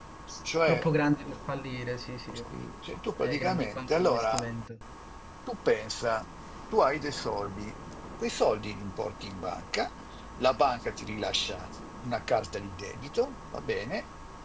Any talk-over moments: Yes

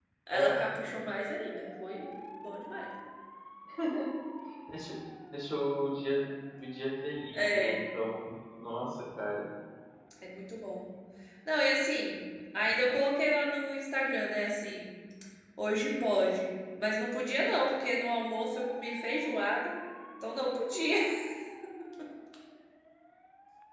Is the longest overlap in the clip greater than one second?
No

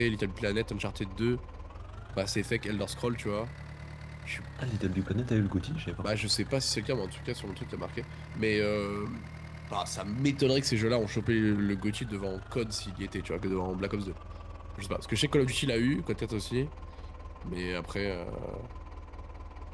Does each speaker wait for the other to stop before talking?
Yes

